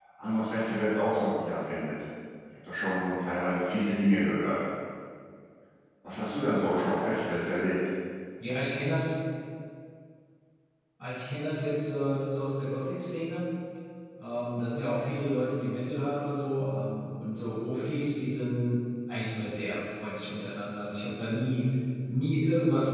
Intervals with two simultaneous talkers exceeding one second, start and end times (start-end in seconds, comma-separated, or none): none